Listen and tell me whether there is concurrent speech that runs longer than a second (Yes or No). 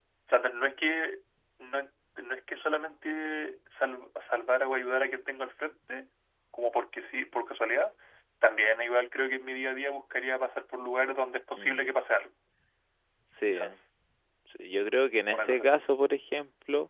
No